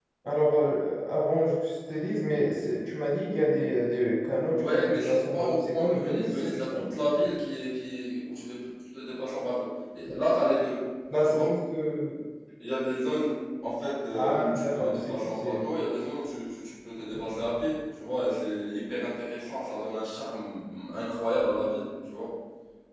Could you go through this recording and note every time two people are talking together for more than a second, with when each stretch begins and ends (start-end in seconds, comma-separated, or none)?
4.5-6.9, 14.1-15.6